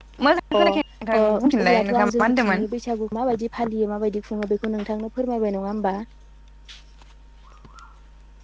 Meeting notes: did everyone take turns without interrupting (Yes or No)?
No